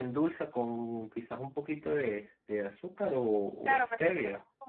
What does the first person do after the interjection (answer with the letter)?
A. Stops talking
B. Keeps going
A